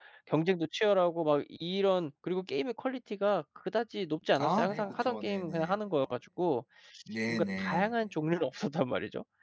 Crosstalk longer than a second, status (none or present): present